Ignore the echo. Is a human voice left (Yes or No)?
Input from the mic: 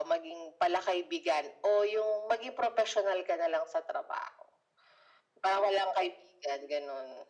No